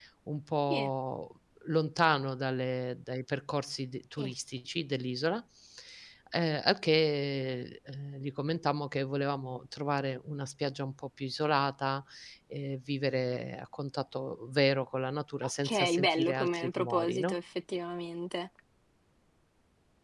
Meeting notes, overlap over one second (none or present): present